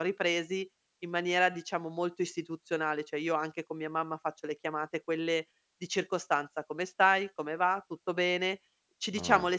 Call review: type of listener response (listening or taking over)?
listening